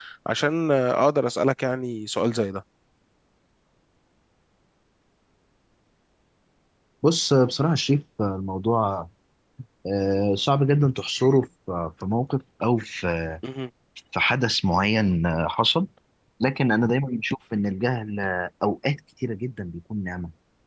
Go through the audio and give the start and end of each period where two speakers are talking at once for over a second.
none

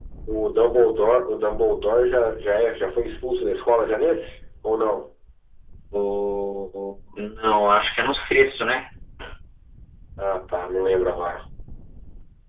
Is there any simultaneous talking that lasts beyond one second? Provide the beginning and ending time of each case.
none

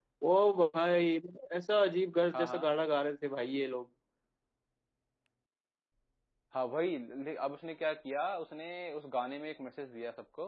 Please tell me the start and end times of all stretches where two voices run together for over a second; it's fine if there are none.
none

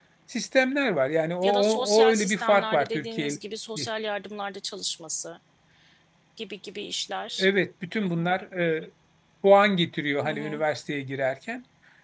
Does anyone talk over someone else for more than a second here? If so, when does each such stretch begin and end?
1.4-3.4

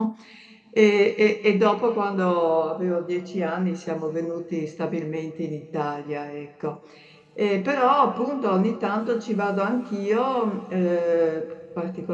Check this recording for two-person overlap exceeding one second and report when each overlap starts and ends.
none

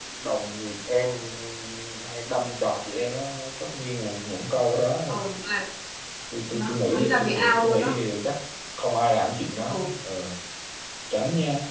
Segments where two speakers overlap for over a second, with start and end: 6.5-8.0

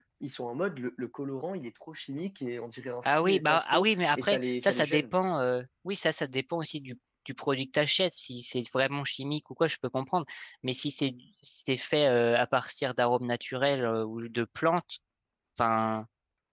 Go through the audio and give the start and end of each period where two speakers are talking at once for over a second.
3.0-5.0

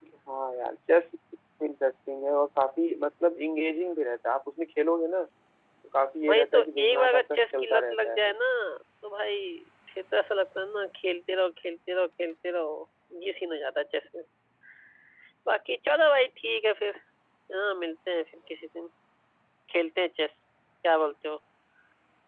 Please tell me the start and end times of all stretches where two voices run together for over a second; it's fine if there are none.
6.3-8.3

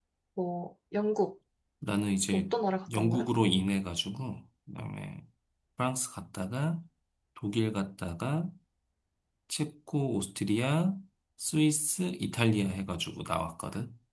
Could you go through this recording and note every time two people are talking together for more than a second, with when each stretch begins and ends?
none

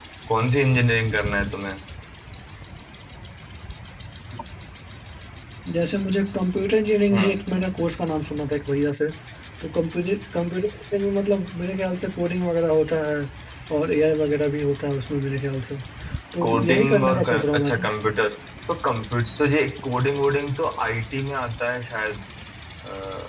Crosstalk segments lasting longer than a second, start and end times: 16.4-17.8

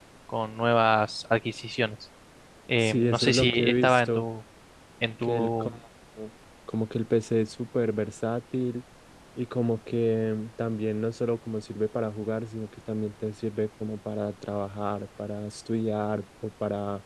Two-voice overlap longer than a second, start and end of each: 2.8-4.2

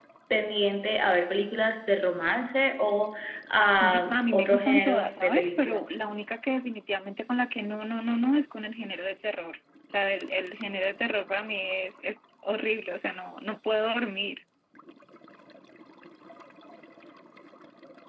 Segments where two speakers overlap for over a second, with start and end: 3.8-6.0

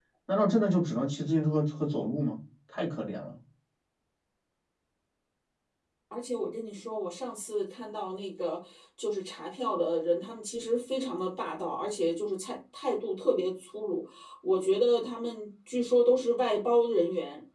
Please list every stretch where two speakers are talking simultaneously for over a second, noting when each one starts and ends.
none

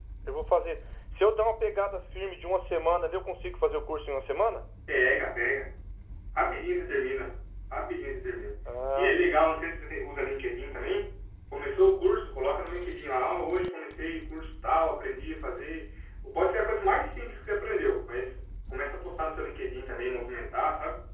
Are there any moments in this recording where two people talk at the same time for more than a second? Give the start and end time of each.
none

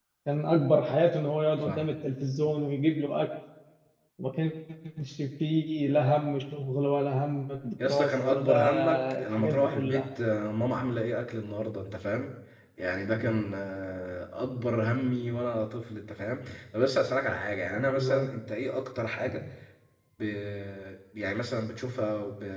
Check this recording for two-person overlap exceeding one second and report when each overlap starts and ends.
7.8-10.1

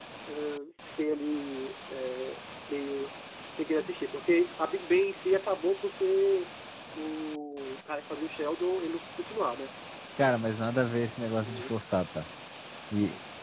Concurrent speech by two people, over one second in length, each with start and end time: none

